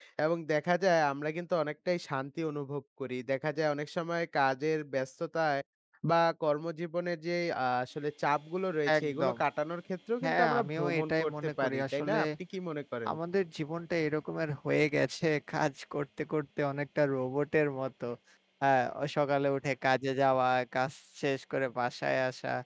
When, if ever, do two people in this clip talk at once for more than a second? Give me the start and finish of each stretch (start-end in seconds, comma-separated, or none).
10.2-12.2